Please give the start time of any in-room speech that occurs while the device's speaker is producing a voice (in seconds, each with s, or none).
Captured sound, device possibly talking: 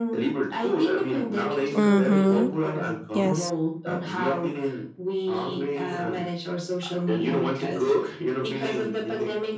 1.8 s